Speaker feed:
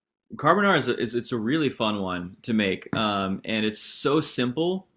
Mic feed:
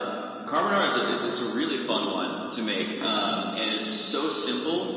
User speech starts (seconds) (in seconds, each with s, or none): none